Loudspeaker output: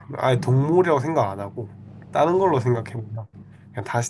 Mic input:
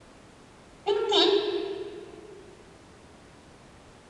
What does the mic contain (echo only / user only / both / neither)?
user only